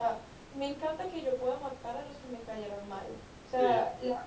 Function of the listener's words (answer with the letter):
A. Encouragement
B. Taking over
A